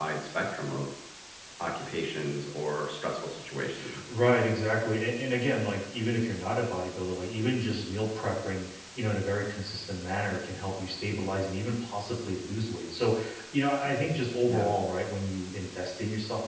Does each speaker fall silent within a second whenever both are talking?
Yes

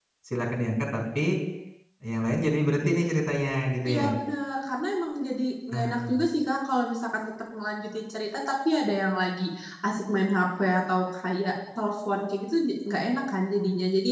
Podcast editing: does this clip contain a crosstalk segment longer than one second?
No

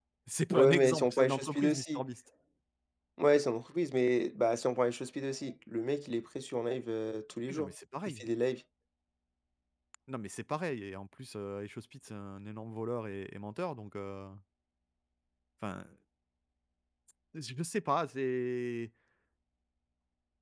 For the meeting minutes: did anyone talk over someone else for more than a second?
Yes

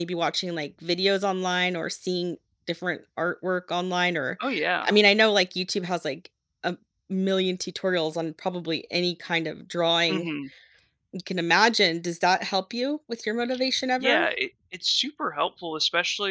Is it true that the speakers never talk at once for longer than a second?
Yes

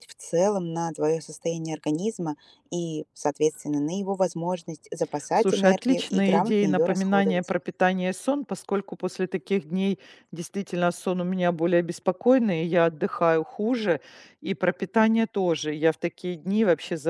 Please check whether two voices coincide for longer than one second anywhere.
Yes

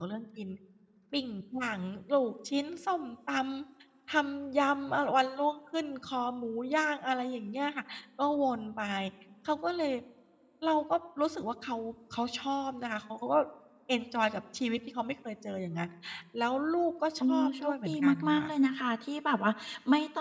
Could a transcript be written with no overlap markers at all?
No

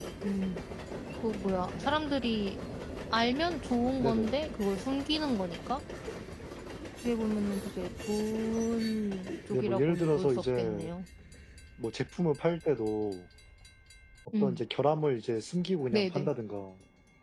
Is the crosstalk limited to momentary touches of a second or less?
No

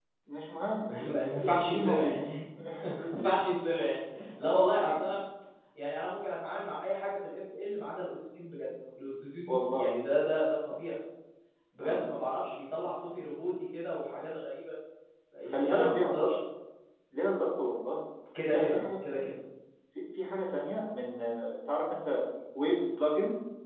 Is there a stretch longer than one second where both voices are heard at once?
Yes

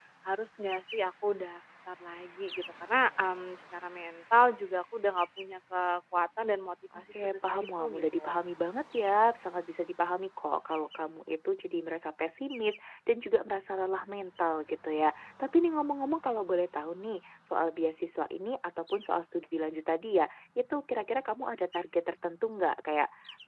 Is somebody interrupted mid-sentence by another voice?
Yes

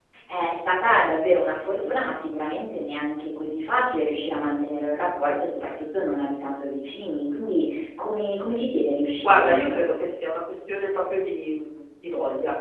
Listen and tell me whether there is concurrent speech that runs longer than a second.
No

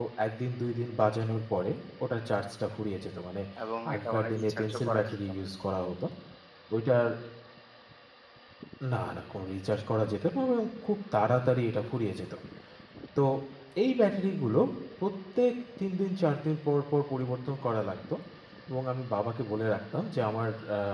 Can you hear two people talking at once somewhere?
Yes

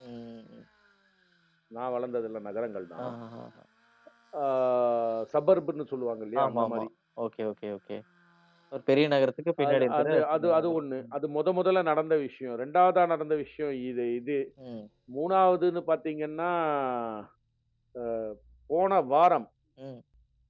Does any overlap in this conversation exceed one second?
Yes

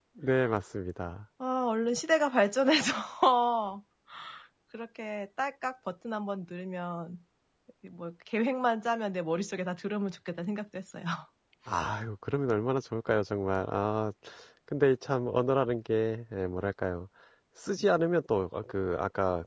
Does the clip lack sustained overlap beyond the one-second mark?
Yes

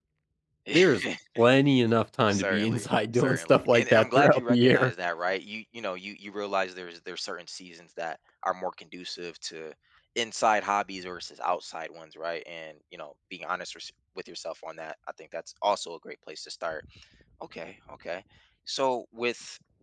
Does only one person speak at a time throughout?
No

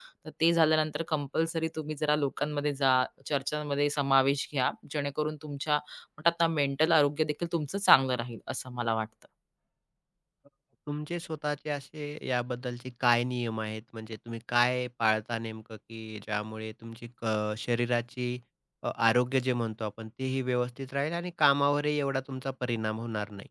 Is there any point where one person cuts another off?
No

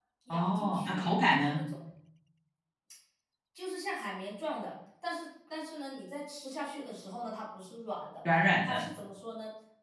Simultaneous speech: Yes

